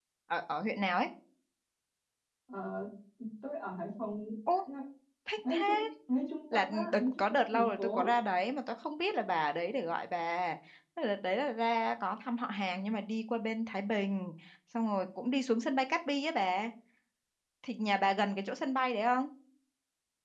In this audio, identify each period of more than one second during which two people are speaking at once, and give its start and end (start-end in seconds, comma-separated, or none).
6.5-8.1